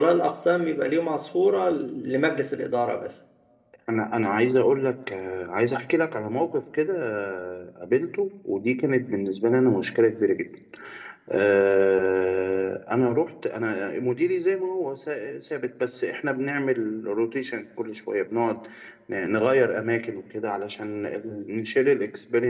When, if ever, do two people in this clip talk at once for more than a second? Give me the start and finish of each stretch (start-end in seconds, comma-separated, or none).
none